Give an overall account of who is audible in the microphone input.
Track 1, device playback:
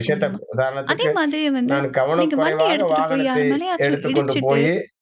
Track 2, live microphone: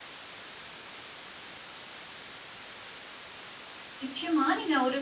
user only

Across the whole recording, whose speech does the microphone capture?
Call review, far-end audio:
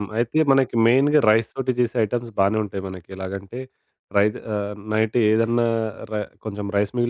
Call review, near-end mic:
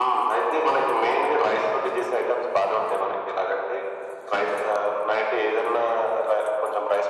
echo only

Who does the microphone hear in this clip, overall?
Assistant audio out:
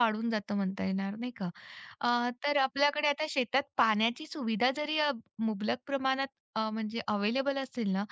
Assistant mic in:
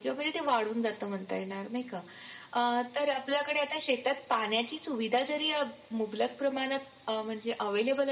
echo only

